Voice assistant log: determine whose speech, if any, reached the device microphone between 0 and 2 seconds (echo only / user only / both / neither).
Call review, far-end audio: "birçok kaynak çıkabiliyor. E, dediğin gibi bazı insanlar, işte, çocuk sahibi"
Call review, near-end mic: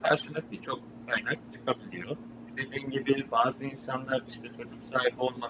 echo only